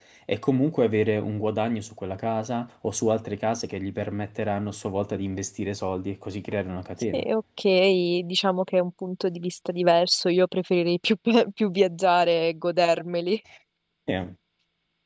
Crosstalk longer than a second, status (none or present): none